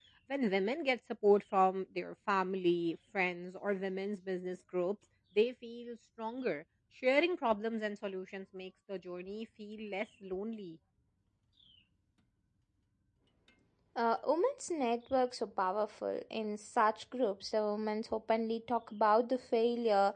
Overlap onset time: none

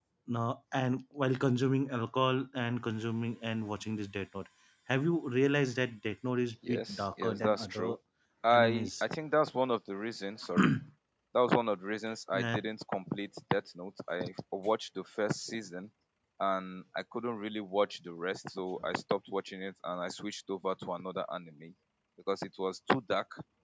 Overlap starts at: 7 s

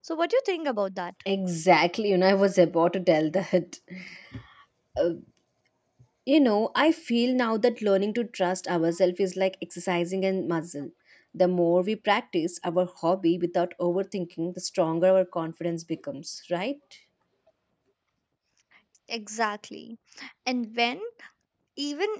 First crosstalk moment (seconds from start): none

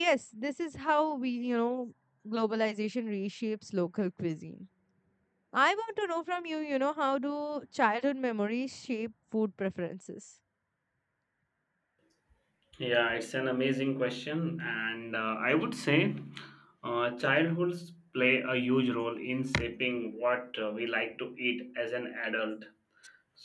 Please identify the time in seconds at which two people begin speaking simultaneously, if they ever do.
none

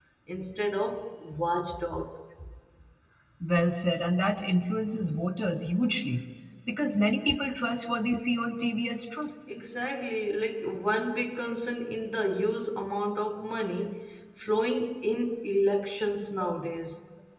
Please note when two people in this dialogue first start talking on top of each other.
none

